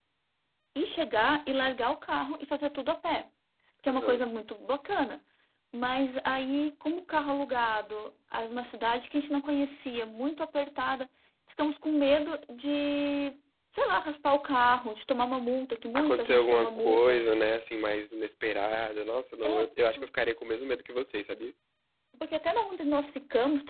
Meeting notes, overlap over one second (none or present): present